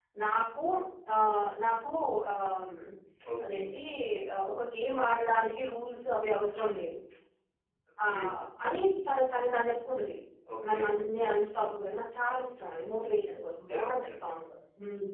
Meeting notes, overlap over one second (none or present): none